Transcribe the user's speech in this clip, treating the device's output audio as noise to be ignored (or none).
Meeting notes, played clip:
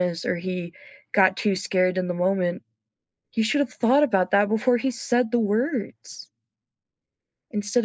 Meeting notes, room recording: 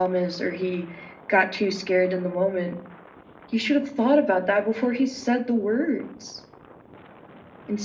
none